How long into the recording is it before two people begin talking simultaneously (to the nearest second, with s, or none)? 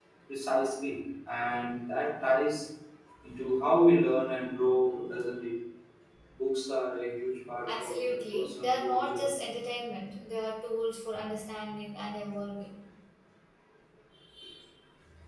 8 s